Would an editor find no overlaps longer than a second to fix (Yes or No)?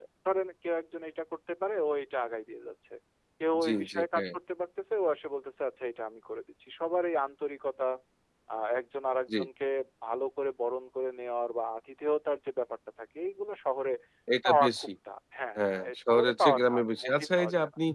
No